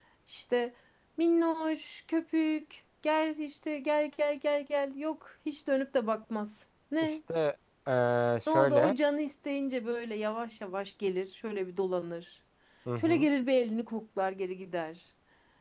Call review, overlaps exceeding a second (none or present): none